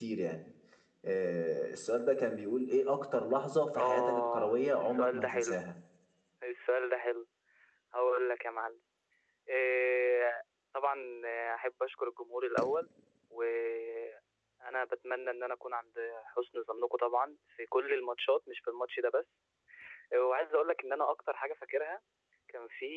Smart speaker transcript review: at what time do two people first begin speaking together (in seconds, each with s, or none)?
3.7 s